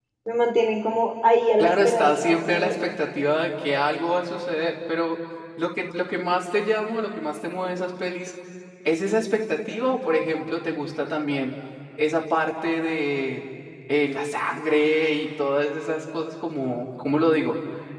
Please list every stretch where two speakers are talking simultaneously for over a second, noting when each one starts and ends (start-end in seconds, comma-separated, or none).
1.6-2.9